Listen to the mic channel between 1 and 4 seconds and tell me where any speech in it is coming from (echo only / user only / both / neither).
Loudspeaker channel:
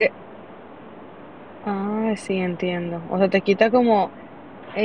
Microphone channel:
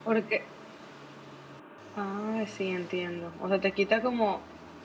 echo only